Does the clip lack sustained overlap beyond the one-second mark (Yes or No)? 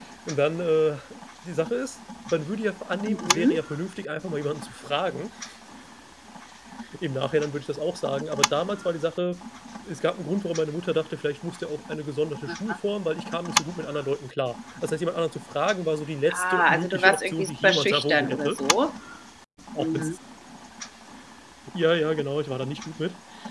No